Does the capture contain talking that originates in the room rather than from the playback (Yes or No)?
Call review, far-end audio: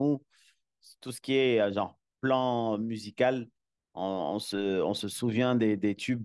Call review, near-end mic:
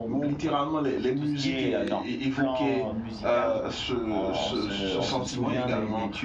Yes